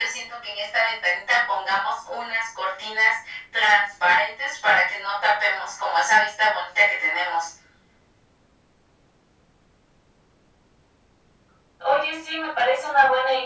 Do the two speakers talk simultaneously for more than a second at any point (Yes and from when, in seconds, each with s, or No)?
No